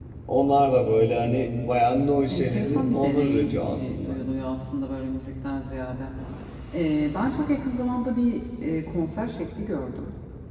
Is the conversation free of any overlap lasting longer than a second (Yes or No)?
No